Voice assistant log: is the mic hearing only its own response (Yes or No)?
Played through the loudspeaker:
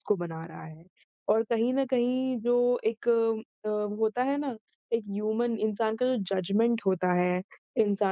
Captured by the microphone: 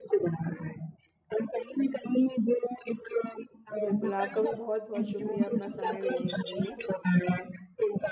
No